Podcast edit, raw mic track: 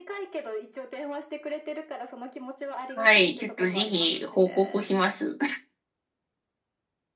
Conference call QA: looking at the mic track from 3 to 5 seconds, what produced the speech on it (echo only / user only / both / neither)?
both